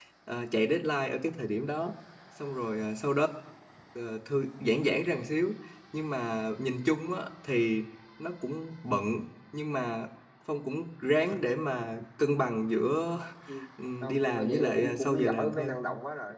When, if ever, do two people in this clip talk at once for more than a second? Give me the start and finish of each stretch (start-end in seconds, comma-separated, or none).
14.0-15.8